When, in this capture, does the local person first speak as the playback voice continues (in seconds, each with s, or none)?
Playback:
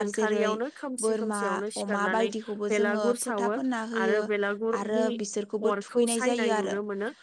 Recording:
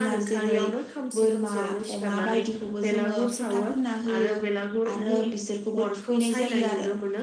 none